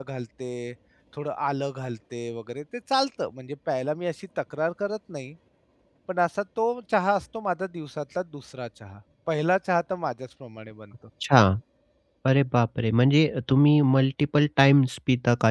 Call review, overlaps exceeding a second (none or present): none